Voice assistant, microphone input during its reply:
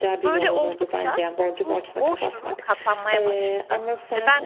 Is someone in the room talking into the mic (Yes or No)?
Yes